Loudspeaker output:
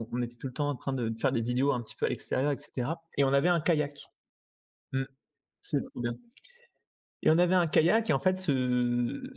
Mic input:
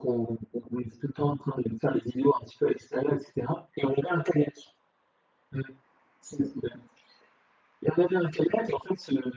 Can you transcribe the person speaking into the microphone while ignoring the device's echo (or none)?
none